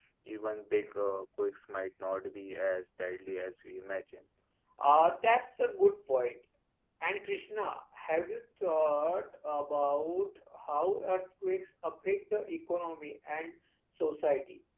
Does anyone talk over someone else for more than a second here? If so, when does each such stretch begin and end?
none

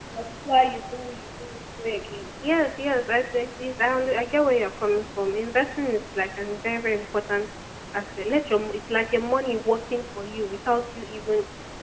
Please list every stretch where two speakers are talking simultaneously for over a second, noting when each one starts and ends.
none

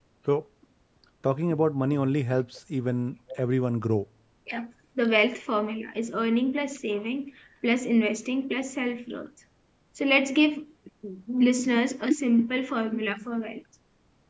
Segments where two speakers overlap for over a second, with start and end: none

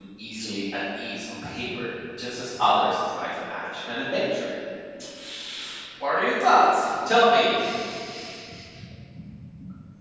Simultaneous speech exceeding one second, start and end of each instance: none

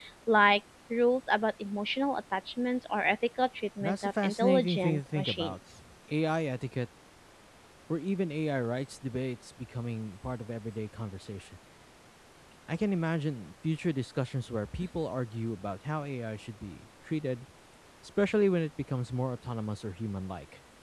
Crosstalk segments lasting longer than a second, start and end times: 3.8-5.5

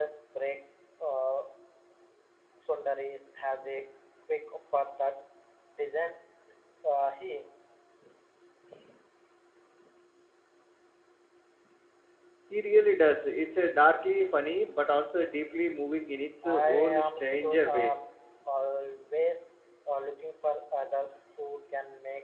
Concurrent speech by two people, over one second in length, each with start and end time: 16.4-17.9

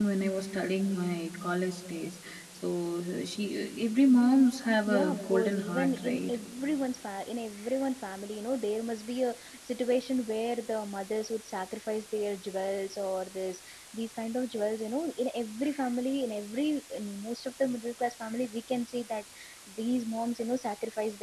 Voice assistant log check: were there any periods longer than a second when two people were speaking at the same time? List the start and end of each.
4.9-6.3

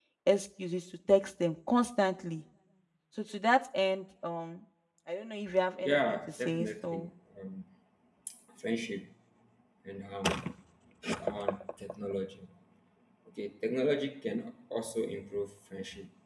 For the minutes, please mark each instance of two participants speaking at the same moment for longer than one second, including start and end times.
5.8-7.1

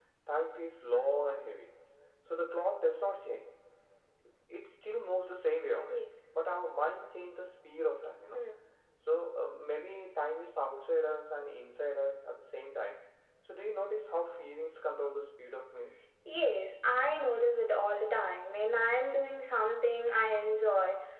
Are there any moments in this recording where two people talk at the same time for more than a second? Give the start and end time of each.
none

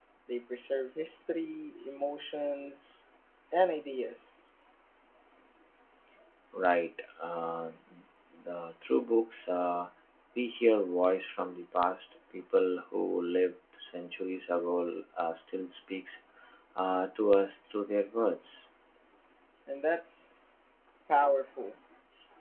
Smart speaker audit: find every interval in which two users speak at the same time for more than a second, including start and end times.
none

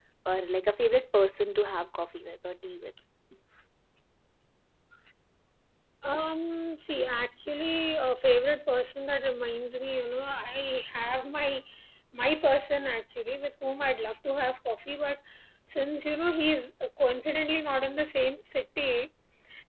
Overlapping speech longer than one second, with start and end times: none

